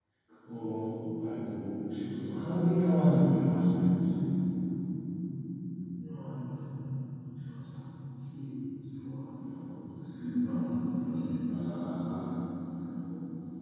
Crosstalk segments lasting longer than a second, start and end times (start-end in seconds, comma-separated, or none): none